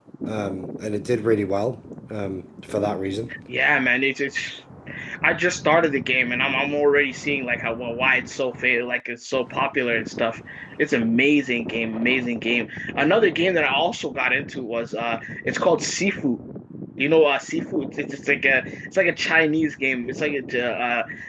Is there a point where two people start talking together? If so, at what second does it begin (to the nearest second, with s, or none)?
none